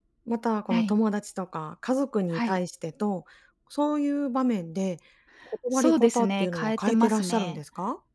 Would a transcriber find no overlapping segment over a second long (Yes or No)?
No